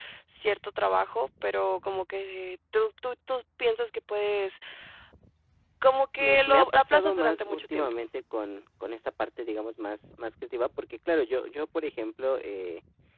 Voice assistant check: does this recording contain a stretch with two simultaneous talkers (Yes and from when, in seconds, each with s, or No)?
Yes, from 6.2 s